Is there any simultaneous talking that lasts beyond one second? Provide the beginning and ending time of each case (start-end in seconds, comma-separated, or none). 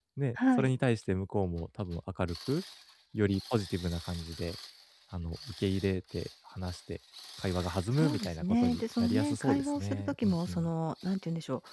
8.0-10.7